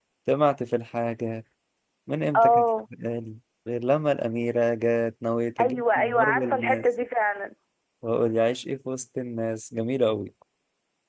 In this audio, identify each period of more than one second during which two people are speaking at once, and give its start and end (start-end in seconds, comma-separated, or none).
5.6-6.8